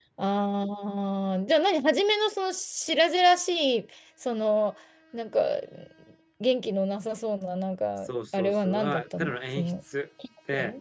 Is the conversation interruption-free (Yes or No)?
No